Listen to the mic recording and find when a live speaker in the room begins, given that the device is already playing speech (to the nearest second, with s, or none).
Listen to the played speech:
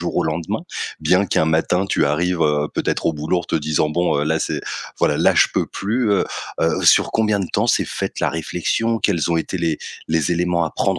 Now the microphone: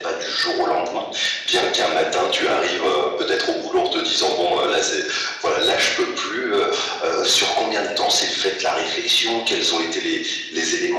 none